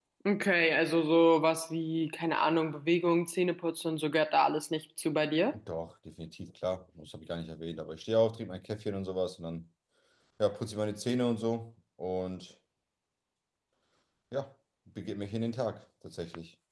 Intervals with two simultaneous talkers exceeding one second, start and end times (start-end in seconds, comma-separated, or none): none